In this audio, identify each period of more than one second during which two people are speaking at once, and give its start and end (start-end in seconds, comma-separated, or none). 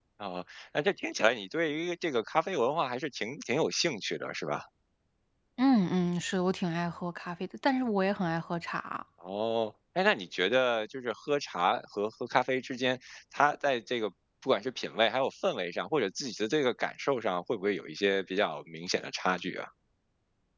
none